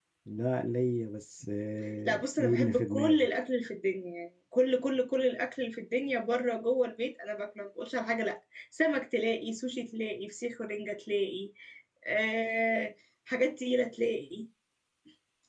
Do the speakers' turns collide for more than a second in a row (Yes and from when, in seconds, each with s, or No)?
Yes, from 2.1 s